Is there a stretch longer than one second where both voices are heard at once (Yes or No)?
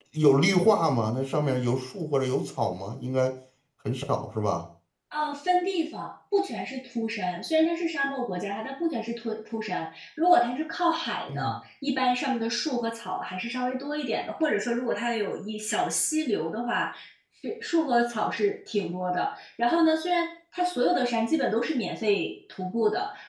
No